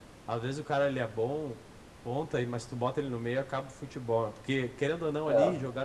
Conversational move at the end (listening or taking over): listening